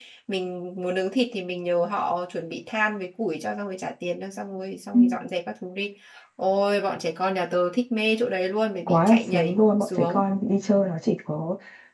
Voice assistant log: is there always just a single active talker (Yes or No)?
No